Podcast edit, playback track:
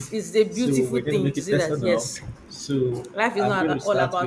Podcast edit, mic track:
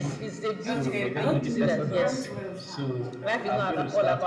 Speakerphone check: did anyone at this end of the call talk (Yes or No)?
Yes